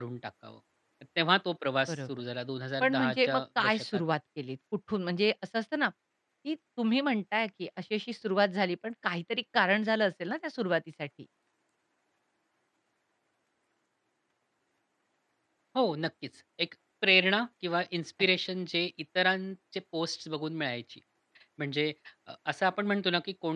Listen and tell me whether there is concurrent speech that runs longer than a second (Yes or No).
Yes